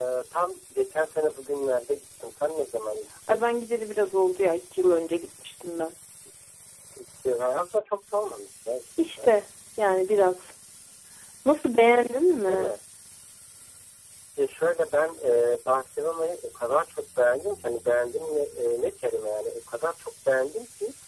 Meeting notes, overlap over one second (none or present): none